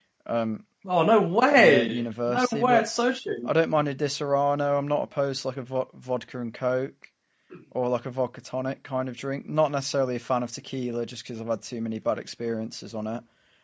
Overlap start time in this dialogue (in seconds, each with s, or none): 1.5 s